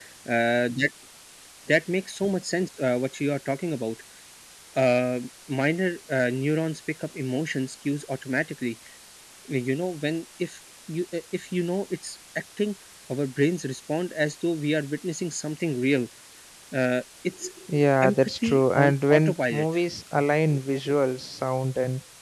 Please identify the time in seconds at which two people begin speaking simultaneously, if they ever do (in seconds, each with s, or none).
18.0 s